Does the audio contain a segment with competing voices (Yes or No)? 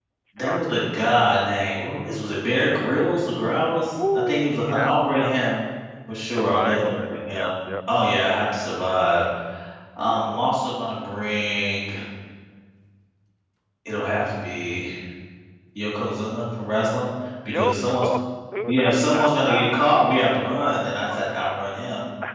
Yes